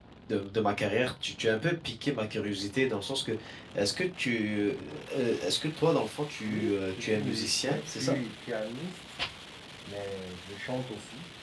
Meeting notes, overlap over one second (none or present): present